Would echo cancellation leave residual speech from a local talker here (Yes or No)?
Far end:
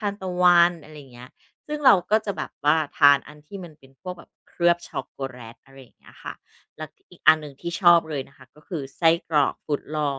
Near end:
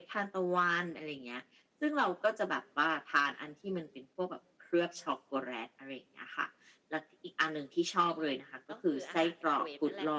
Yes